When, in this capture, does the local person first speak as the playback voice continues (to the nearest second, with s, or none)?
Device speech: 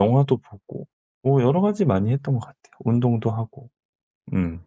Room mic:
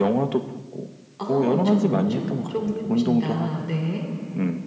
1 s